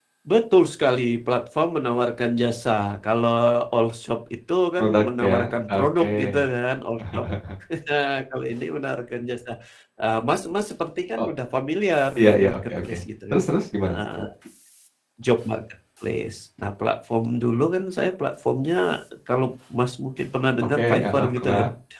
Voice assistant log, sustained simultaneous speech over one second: present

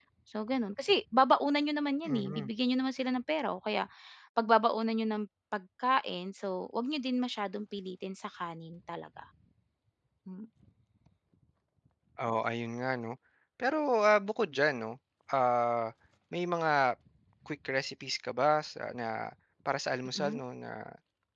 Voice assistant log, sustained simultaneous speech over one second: none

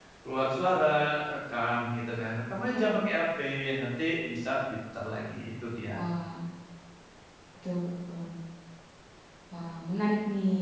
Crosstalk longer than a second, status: none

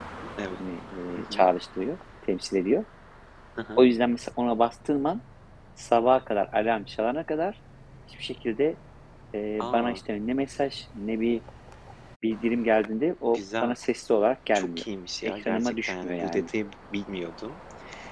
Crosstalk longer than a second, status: present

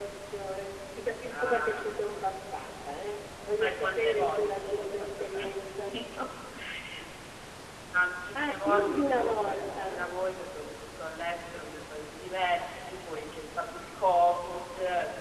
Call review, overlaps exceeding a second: present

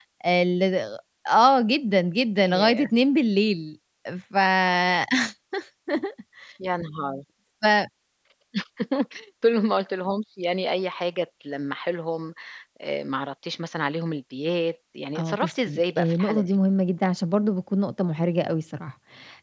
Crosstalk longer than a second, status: present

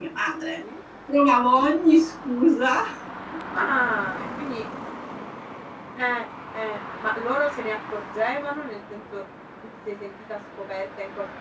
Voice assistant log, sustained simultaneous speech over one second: none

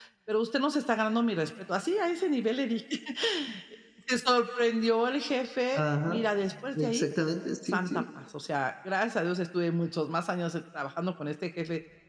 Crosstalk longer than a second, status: none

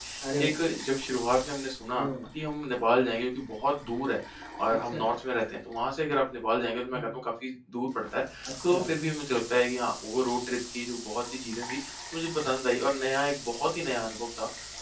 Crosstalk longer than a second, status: none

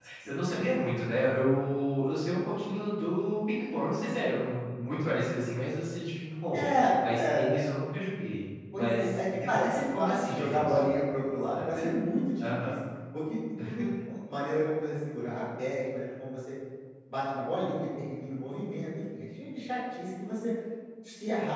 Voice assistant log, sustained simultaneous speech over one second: present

